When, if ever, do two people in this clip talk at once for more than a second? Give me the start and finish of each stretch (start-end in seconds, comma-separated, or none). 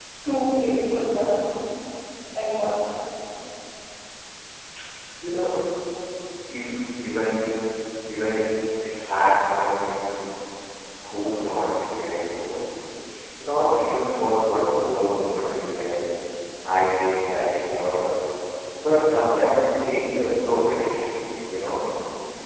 none